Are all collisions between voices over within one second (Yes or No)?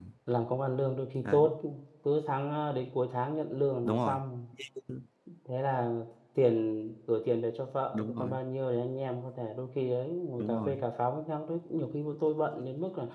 Yes